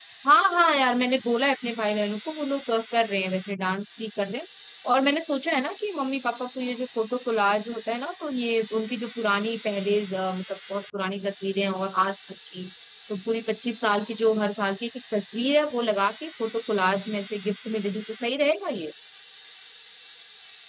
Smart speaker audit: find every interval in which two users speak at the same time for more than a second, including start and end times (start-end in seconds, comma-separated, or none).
none